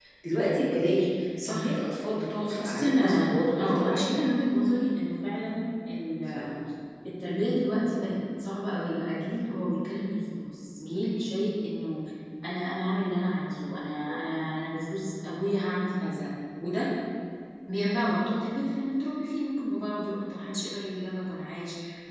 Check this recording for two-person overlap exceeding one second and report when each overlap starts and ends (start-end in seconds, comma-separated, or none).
2.6-4.2